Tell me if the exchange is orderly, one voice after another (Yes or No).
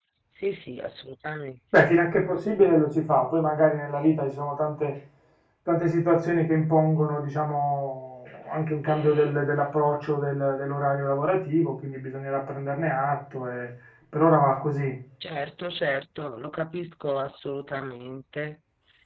Yes